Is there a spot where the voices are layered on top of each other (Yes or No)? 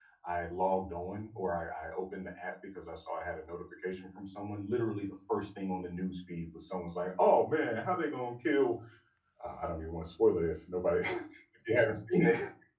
No